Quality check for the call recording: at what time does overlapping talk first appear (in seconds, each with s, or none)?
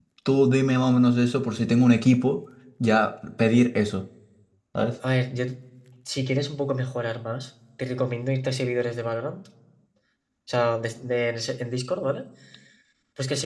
none